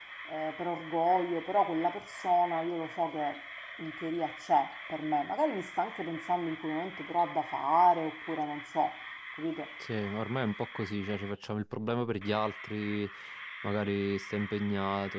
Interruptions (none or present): none